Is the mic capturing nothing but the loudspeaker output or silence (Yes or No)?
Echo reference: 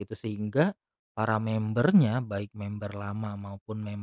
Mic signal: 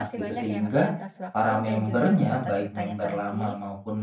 No